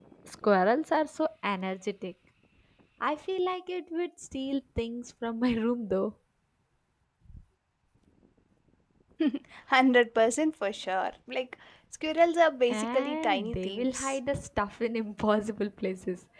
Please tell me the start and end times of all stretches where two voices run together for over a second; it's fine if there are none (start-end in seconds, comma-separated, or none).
12.7-14.2